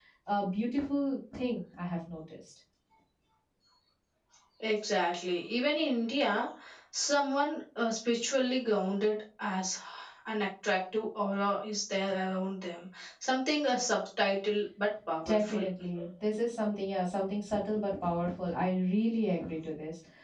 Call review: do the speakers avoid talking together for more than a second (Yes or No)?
Yes